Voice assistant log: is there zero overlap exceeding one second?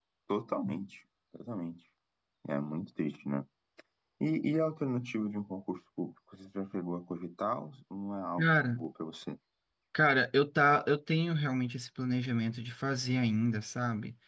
Yes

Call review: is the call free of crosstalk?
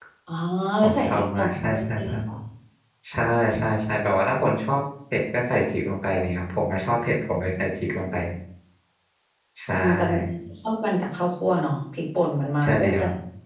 No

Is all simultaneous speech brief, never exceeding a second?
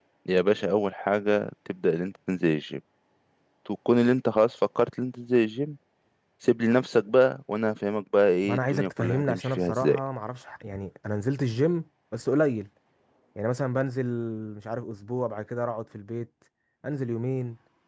No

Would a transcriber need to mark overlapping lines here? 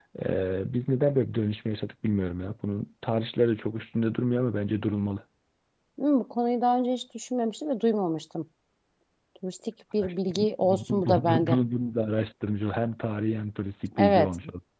Yes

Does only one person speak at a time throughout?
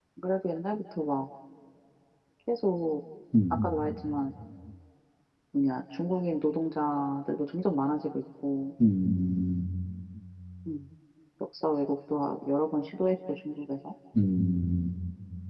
Yes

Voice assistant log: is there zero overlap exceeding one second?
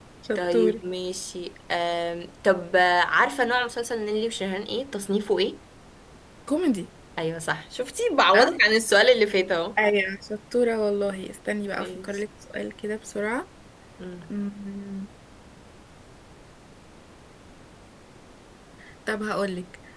Yes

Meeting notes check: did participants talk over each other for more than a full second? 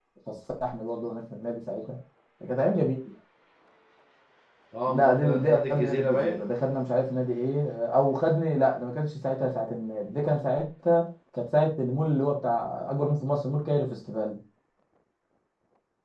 Yes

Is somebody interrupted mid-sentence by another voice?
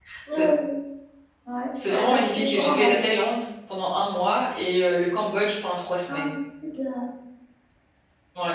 Yes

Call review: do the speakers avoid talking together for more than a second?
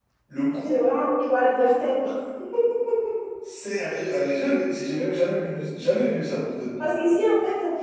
Yes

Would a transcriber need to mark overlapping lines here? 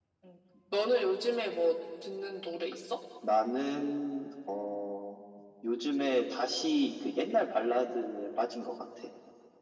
No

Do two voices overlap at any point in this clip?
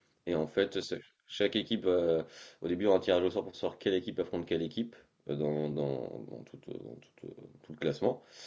No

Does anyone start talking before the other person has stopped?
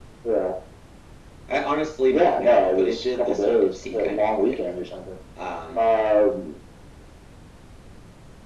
Yes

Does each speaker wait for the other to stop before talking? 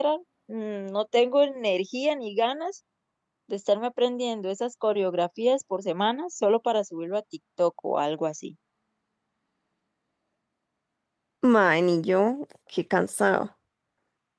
Yes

